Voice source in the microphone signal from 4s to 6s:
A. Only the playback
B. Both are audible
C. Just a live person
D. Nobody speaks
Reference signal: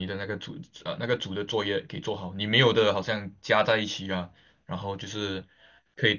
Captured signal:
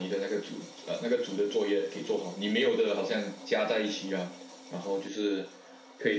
A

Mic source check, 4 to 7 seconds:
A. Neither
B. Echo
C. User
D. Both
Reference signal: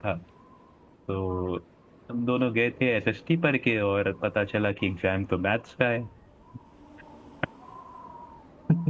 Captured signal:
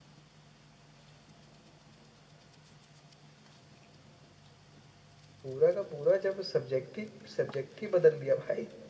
C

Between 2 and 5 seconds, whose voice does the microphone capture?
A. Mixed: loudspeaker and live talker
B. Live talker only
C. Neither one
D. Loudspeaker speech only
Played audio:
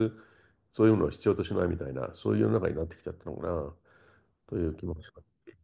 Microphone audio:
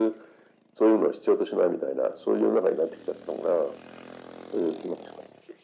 D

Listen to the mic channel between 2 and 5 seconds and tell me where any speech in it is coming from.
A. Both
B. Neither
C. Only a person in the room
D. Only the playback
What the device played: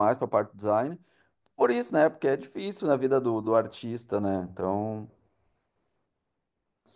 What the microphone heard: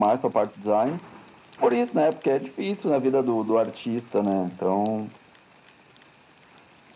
D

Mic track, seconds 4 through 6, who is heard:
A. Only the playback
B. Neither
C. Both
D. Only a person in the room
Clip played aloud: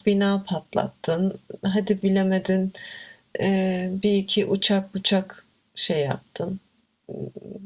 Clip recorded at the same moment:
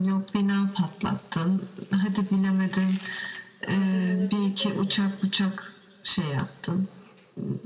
C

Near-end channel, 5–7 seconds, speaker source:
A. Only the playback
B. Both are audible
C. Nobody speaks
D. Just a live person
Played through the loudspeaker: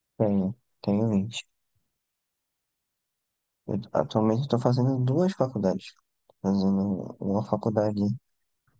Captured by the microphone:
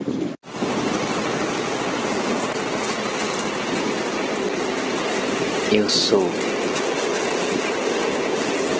D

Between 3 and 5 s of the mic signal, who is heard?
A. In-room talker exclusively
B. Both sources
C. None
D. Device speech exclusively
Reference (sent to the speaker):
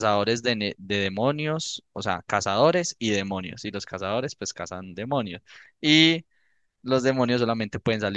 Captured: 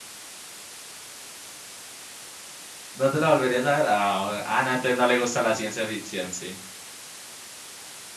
A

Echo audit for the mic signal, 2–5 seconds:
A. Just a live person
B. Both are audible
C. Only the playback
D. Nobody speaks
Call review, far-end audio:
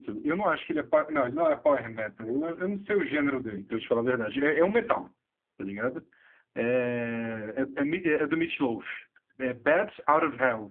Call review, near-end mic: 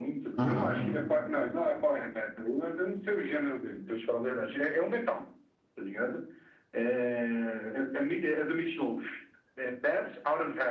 C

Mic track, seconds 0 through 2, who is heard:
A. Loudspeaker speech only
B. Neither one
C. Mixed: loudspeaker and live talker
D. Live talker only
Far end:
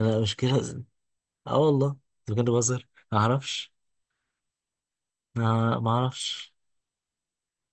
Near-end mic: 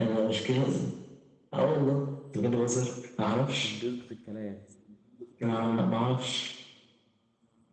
A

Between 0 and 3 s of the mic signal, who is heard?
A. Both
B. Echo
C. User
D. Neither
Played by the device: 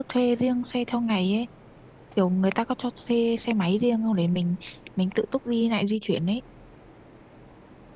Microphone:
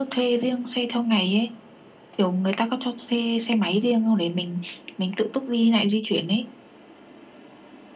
B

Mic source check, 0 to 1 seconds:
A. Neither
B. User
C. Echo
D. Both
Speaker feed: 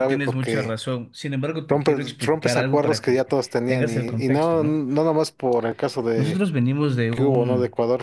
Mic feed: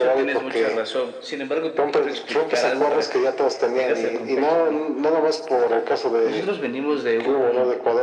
C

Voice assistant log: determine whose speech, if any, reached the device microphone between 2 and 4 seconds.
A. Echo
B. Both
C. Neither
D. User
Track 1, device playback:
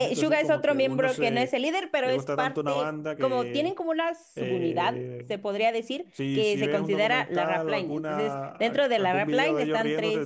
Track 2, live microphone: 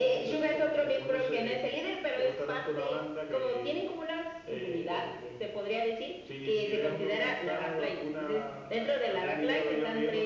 A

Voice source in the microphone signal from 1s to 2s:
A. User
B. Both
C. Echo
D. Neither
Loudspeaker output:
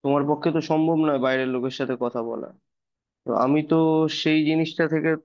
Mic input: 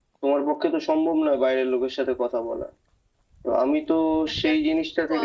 C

